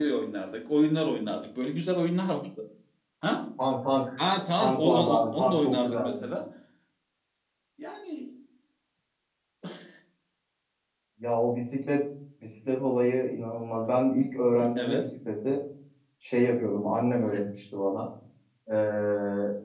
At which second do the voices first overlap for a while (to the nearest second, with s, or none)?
5 s